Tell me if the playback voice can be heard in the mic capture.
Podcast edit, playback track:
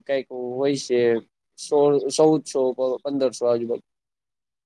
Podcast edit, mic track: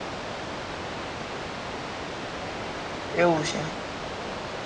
No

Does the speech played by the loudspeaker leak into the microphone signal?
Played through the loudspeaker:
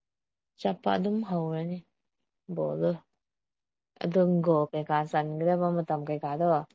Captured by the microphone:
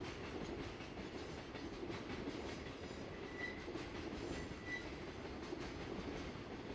No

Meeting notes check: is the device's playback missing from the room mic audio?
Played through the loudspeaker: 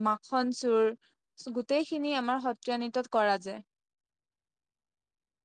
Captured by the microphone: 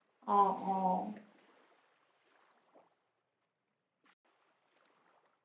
Yes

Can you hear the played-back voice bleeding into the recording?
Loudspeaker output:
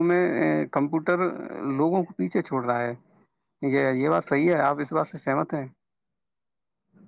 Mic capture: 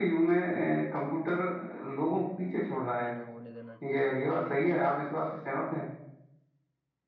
Yes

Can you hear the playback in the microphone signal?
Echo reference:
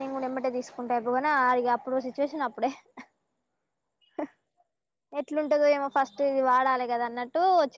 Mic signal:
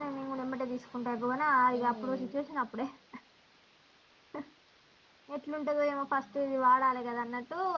Yes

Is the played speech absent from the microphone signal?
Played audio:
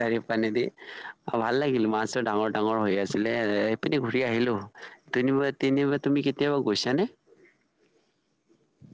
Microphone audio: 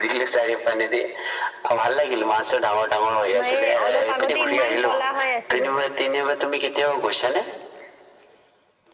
No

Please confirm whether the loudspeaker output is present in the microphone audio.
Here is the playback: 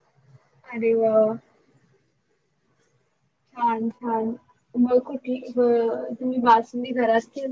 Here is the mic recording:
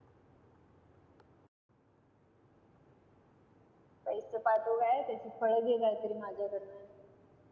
No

